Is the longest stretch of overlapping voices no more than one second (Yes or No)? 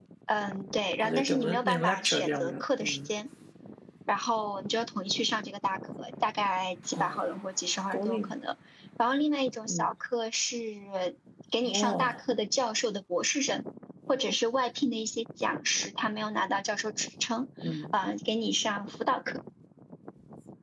No